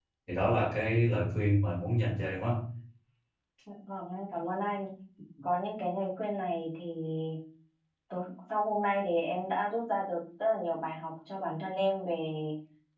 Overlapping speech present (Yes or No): No